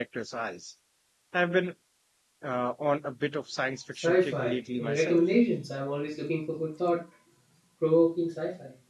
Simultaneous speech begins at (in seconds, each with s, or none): 3.9 s